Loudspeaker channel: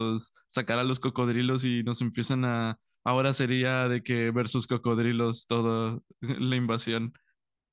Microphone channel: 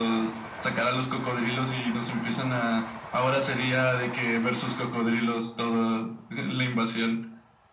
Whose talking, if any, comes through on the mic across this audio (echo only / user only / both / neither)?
echo only